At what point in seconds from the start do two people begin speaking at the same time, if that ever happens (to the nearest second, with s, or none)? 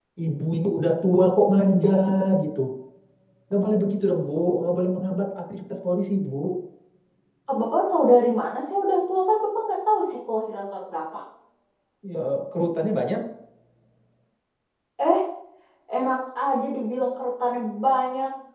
none